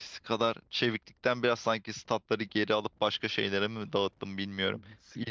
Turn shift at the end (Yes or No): Yes